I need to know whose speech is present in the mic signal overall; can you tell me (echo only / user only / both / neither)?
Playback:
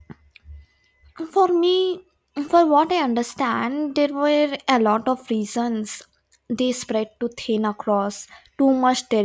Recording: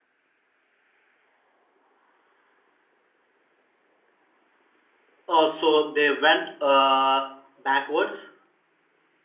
user only